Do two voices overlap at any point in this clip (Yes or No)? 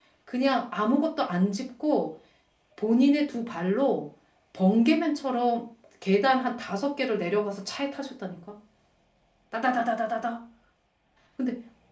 No